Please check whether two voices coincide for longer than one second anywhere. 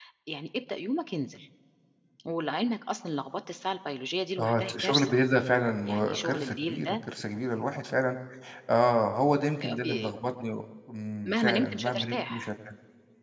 Yes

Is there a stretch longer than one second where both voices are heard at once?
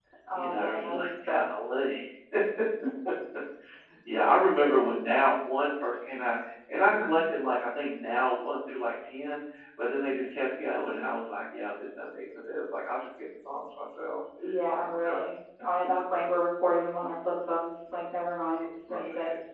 Yes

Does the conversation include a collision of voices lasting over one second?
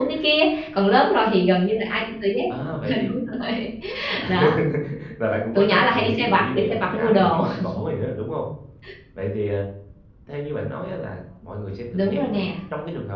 Yes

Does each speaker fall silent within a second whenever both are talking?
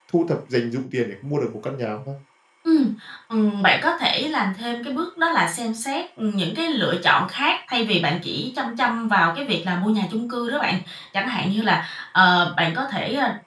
Yes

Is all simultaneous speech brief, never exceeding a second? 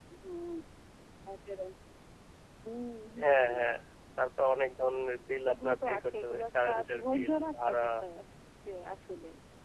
No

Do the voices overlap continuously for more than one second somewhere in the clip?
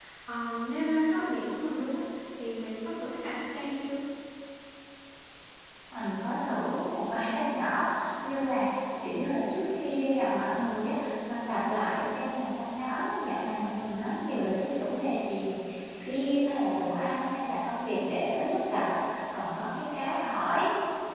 No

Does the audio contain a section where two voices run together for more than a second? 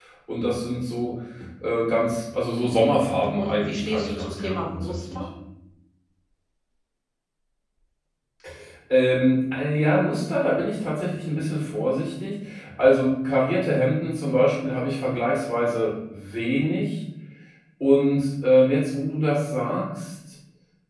Yes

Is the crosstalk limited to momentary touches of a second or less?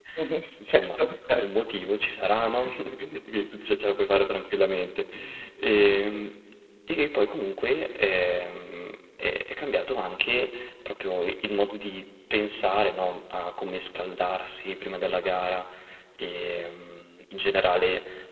Yes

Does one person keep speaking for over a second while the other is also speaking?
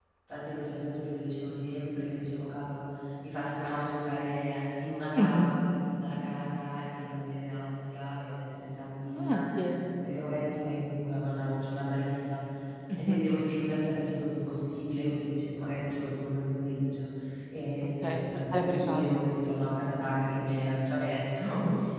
Yes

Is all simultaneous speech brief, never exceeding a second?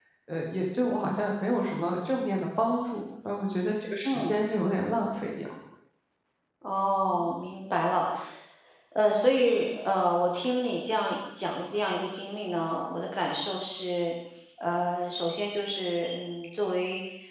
Yes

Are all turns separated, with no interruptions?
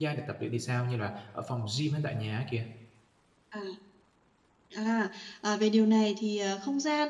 Yes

